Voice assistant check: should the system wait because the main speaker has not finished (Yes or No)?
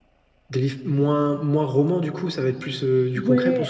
No